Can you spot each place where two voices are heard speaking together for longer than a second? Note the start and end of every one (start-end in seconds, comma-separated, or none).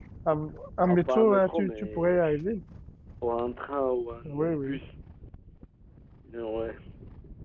0.8-2.1